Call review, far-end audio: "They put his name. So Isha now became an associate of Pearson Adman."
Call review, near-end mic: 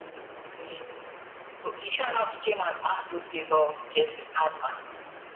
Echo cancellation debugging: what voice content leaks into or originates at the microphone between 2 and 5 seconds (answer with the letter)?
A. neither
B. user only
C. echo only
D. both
C